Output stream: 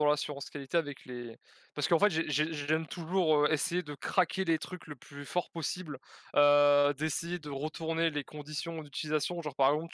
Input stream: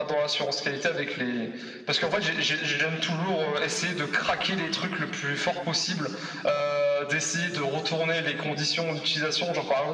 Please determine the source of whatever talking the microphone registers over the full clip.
echo only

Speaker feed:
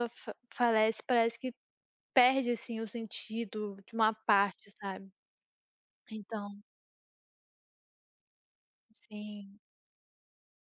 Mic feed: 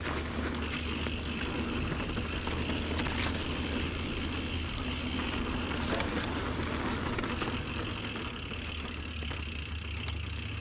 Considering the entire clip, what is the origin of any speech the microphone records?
neither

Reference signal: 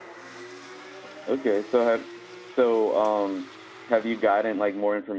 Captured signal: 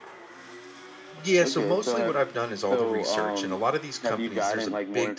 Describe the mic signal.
both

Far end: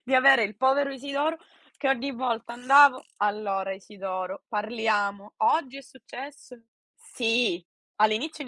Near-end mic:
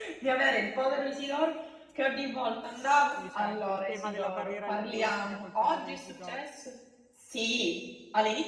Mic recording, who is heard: both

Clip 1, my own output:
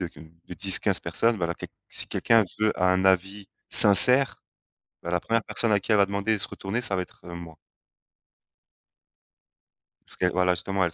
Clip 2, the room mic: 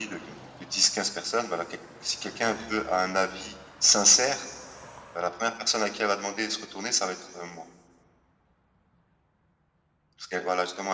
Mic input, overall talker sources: echo only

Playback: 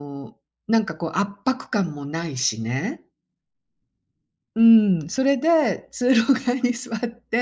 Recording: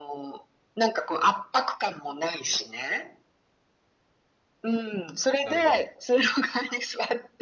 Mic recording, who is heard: both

